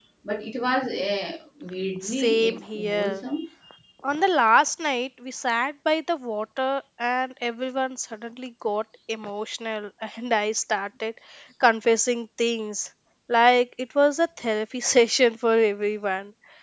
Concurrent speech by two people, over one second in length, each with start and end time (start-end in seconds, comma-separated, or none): 2.0-3.2